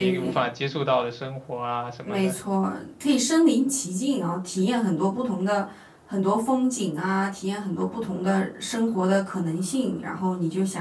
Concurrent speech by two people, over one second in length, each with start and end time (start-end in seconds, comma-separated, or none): none